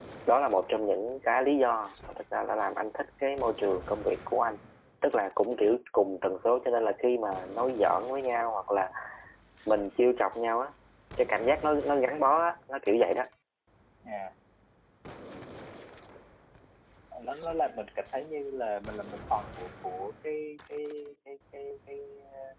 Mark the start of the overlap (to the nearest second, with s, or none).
none